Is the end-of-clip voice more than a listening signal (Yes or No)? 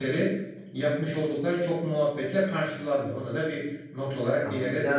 Yes